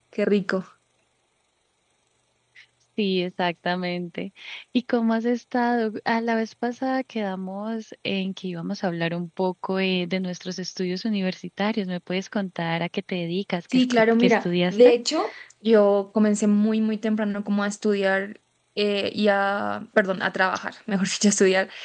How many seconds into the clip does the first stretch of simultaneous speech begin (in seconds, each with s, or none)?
13.7 s